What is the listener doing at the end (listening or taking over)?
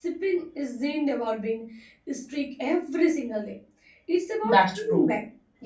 listening